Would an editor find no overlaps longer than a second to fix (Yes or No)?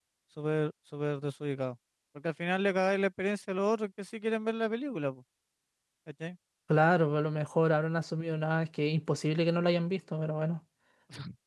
Yes